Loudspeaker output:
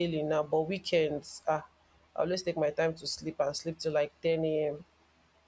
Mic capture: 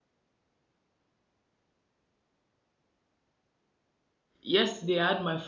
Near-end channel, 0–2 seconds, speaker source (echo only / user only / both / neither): neither